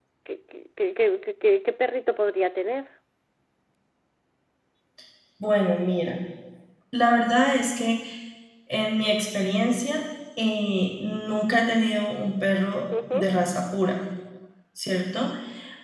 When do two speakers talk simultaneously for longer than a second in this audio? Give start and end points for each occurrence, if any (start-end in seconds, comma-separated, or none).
none